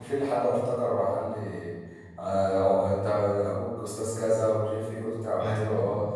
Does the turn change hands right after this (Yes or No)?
No